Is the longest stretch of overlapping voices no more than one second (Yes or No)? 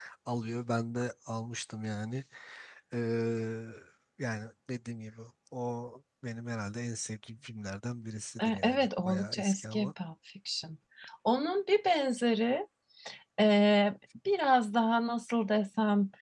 No